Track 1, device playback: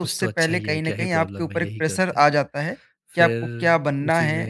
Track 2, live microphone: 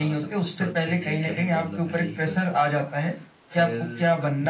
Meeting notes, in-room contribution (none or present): none